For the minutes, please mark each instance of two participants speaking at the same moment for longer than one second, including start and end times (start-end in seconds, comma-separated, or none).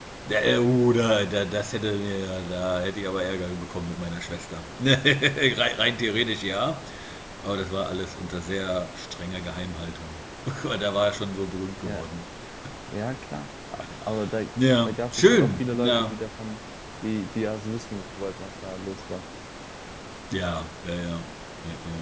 14.8-16.2